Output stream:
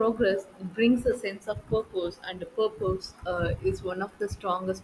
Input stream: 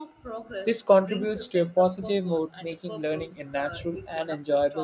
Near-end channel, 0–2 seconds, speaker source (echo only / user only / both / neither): both